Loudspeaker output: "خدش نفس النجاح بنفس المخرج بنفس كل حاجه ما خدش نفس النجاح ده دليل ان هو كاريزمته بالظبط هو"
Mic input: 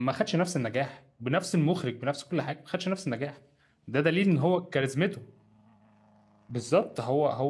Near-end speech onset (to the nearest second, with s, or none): none